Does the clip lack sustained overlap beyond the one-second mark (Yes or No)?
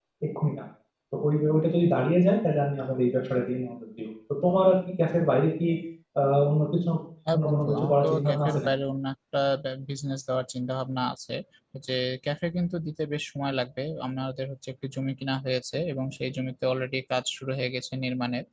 No